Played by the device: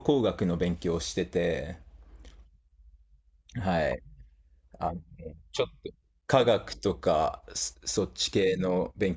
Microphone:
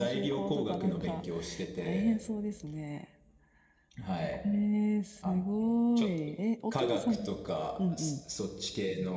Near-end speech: present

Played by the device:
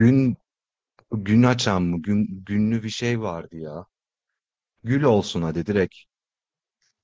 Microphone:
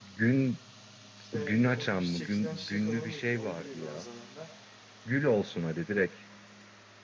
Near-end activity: present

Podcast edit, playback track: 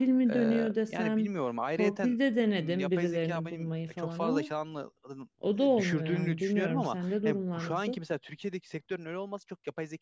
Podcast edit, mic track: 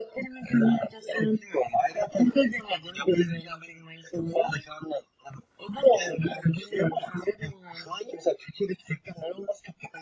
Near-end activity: none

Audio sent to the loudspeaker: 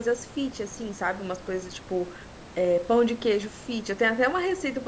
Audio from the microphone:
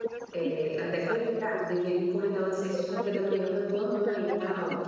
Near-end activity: present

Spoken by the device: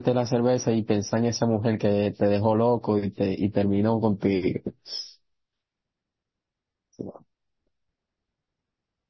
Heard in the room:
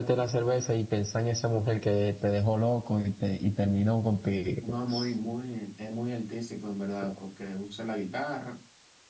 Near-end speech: present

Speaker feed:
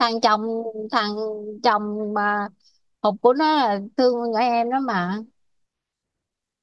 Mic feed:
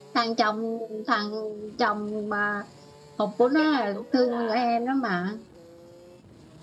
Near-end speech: present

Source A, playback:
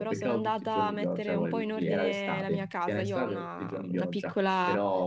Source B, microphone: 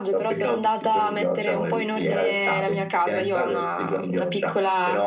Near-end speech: none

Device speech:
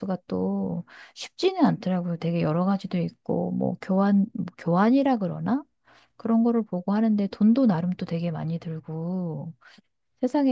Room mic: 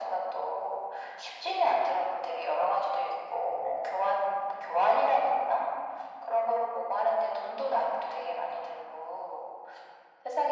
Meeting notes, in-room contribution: none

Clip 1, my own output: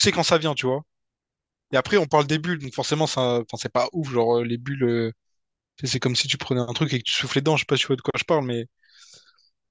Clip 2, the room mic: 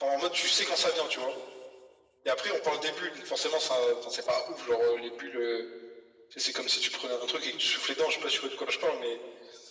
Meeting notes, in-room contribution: none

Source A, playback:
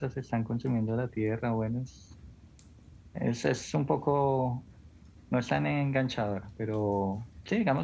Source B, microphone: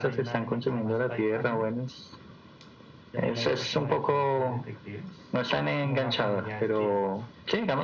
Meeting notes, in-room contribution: present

